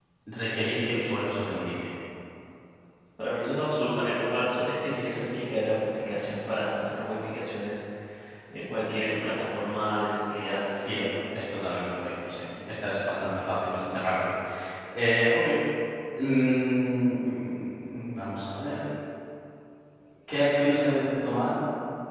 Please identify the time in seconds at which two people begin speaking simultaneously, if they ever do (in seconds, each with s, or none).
none